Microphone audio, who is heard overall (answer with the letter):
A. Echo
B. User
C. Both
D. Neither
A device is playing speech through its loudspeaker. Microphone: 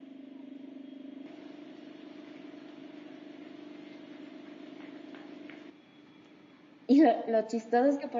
B